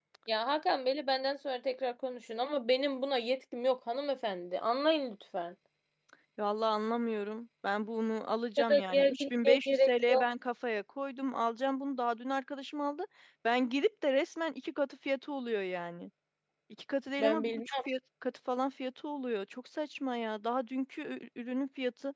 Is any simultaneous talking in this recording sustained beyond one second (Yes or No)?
Yes